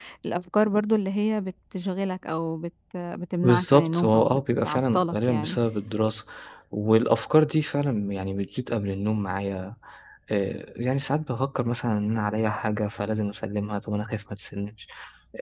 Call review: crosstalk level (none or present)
present